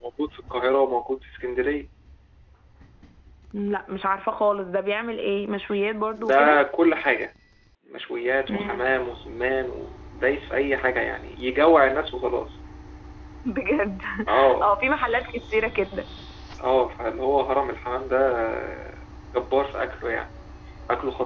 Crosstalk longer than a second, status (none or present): none